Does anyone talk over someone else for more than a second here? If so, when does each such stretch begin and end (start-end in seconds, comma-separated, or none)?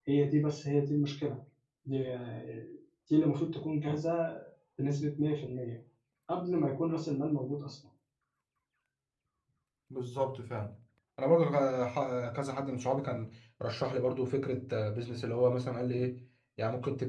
none